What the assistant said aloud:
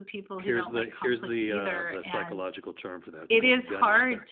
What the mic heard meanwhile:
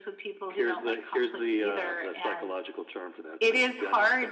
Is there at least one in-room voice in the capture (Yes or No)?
No